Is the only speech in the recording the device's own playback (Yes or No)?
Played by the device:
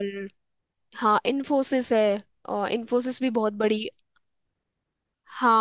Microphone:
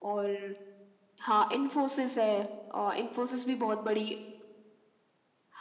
Yes